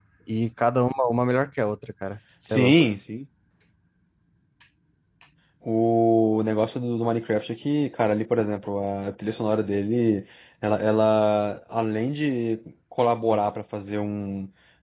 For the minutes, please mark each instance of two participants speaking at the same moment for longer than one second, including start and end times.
none

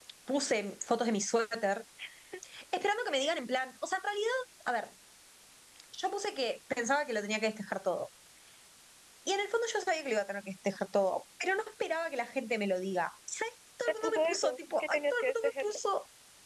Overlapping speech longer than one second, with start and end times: 13.9-15.8

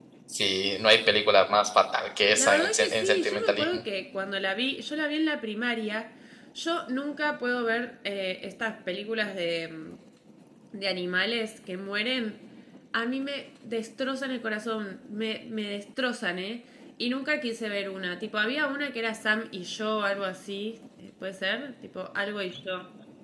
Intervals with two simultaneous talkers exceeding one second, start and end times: 2.4-3.8

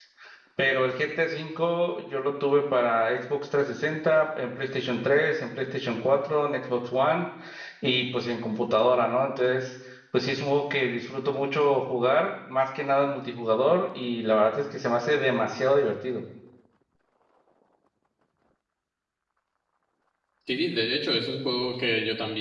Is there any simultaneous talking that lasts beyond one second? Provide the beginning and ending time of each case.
none

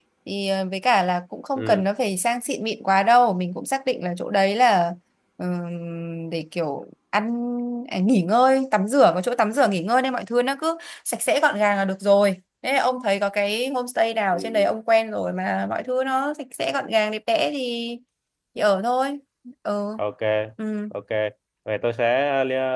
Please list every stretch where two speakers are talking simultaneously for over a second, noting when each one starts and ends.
none

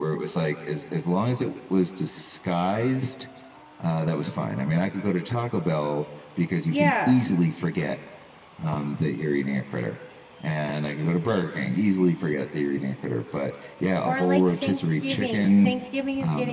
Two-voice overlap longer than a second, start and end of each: 14.1-15.7

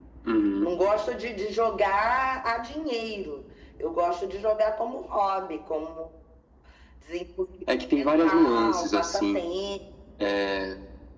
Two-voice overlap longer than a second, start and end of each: 8.0-9.4

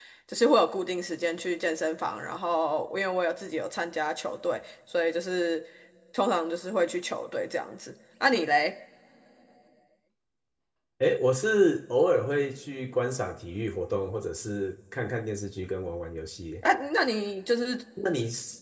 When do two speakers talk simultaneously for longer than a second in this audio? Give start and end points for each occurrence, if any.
none

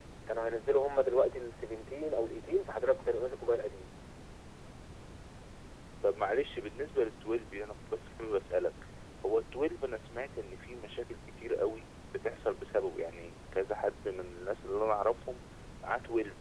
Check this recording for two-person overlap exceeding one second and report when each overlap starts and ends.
none

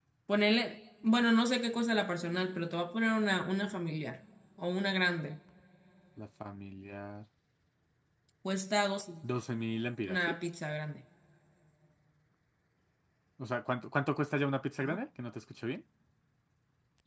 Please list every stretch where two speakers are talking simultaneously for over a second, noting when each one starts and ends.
none

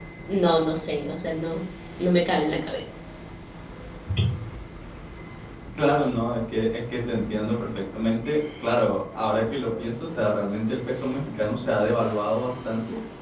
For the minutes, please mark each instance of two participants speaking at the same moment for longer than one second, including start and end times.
none

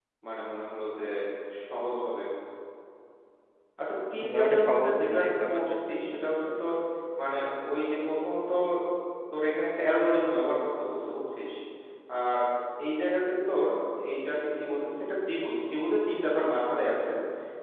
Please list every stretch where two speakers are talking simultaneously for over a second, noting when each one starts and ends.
4.2-5.9

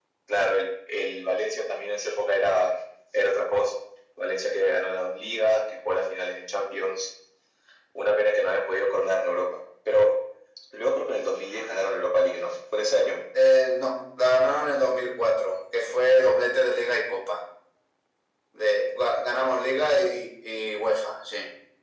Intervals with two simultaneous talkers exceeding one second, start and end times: none

